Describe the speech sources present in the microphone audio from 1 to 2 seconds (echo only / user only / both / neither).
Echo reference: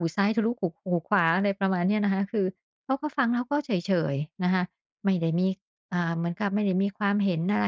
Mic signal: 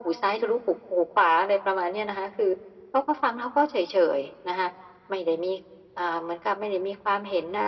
echo only